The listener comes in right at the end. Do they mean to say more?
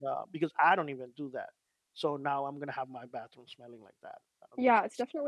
Yes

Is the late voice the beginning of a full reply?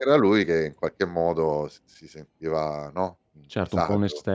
Yes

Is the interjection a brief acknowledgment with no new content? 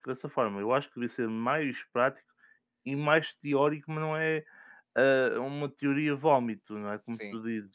Yes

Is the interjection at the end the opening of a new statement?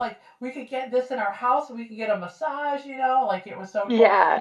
No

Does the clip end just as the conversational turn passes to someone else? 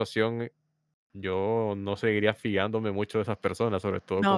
No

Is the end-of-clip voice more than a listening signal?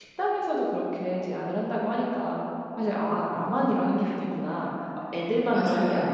No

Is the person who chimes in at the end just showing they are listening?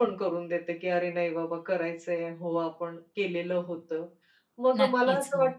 Yes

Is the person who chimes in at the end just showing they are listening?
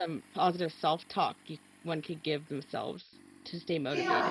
No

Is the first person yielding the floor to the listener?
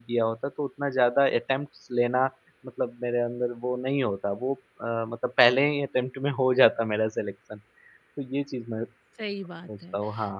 Yes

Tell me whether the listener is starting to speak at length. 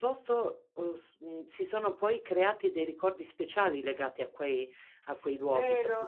Yes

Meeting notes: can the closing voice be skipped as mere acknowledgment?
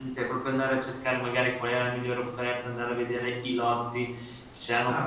No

